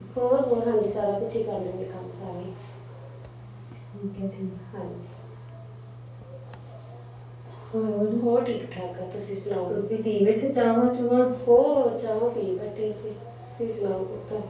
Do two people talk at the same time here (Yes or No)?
No